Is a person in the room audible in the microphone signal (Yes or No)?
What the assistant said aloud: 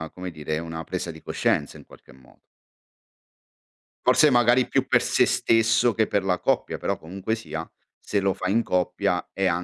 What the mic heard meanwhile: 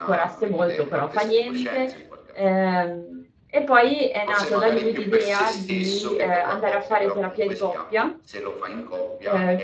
Yes